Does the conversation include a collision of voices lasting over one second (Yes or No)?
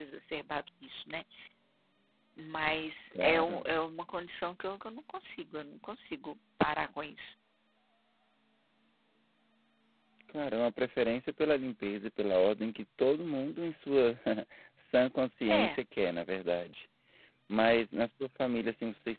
No